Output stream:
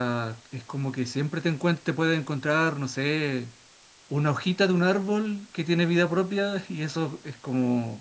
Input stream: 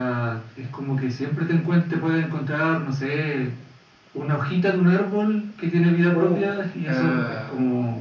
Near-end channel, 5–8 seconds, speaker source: both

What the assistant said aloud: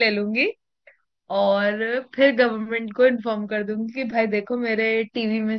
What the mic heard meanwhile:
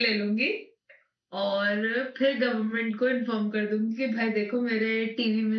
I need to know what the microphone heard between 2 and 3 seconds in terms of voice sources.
echo only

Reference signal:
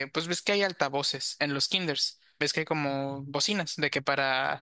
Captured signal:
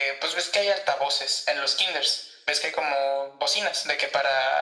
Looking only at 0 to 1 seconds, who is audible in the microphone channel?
echo only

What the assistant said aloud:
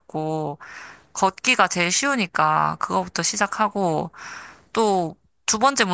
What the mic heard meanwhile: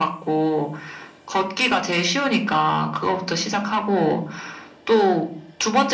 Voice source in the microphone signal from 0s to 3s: echo only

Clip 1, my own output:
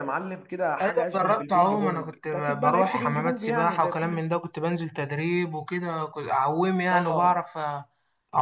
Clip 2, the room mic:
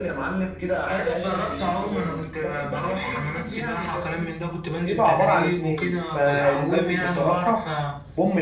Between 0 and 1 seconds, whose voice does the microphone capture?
echo only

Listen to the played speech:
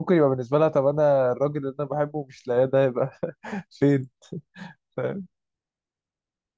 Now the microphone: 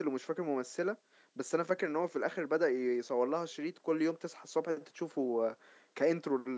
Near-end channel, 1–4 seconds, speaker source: user only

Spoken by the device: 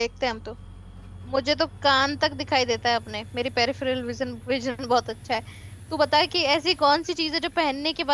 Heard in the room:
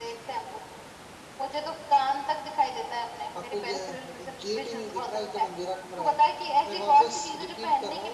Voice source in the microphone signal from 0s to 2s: echo only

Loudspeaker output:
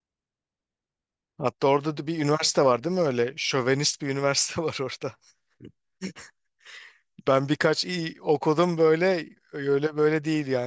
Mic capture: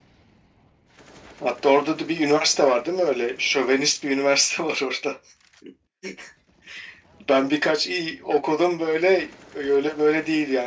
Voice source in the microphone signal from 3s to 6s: echo only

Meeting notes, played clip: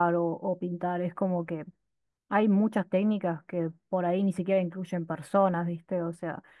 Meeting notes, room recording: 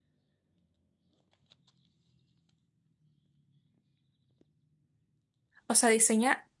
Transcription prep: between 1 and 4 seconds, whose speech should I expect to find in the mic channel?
neither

